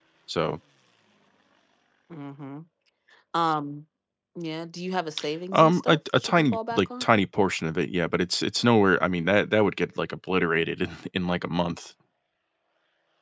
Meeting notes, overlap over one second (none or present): present